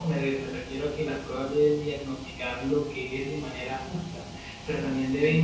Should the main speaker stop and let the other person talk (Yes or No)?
No